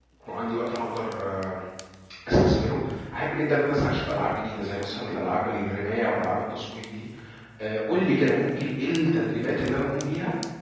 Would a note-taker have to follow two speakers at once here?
No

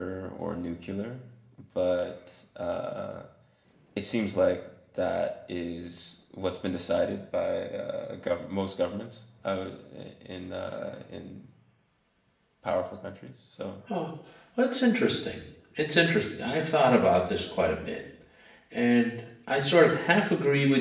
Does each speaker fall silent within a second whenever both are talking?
Yes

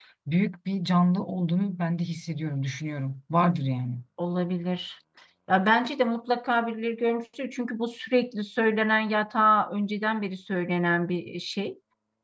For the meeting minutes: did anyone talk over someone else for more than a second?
No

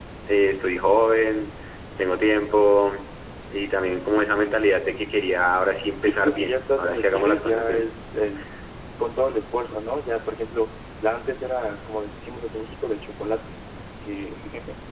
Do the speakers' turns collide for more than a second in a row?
Yes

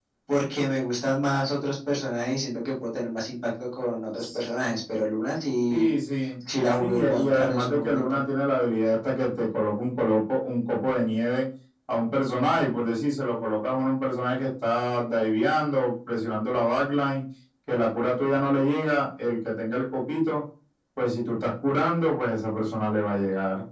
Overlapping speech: Yes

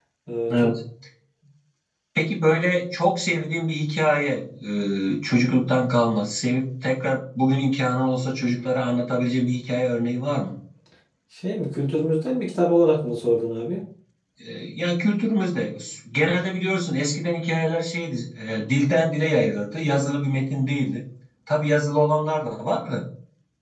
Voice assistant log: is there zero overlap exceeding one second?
Yes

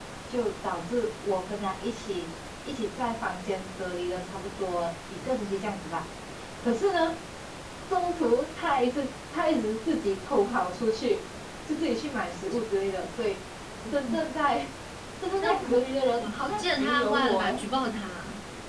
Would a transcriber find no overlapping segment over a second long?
No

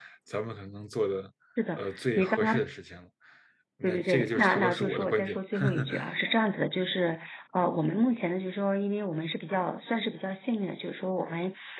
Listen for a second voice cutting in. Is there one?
Yes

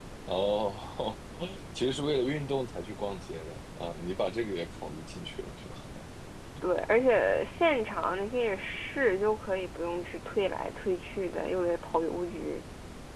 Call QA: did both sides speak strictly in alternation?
Yes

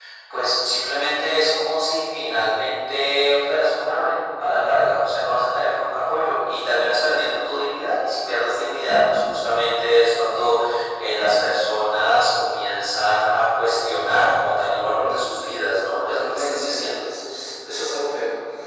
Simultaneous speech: Yes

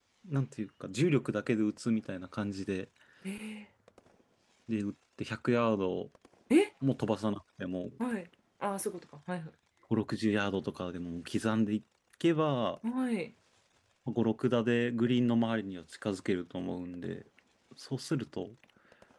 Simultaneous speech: No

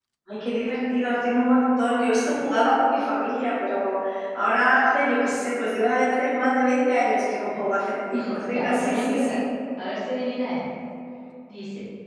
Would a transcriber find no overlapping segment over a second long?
No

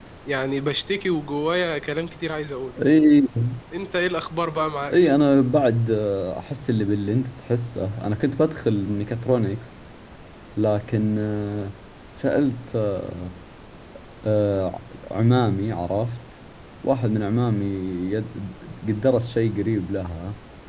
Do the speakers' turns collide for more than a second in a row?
No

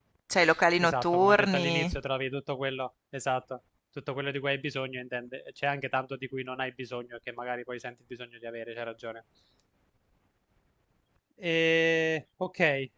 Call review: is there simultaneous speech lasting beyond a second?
Yes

